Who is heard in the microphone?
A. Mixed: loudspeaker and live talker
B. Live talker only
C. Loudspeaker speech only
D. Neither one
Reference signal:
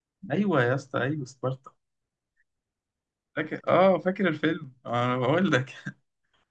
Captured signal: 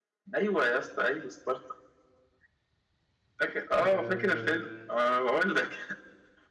A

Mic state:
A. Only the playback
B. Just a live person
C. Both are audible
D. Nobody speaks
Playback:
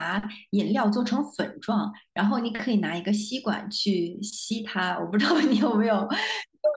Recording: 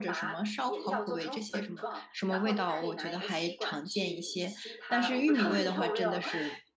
C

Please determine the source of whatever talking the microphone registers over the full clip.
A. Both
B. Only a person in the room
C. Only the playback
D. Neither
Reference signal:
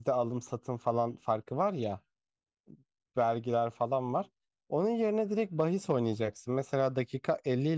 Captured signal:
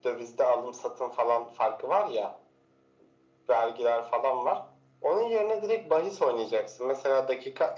C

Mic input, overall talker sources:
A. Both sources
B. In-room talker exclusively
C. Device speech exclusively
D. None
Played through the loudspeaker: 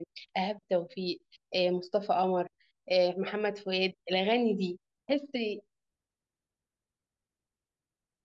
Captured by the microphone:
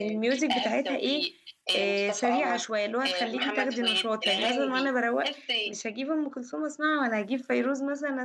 A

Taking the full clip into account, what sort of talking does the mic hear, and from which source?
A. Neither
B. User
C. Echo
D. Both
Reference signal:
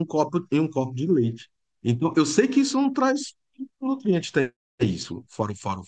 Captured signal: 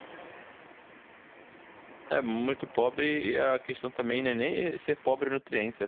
B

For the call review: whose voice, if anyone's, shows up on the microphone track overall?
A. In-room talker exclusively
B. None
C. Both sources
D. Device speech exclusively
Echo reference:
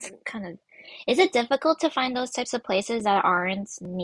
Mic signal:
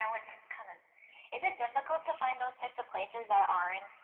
D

